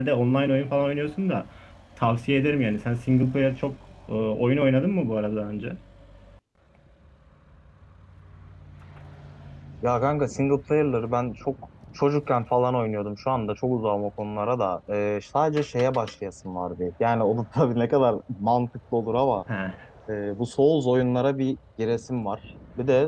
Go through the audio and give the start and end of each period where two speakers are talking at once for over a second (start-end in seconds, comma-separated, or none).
none